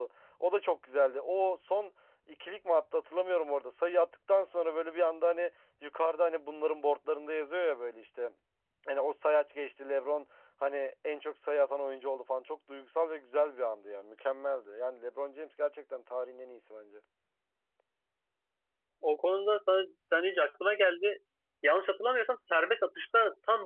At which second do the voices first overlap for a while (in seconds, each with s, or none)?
none